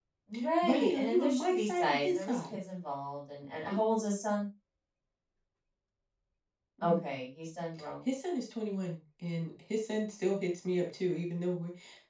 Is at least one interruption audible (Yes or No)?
Yes